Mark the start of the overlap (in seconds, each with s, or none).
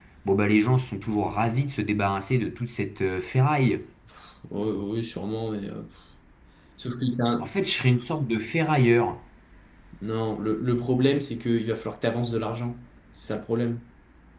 none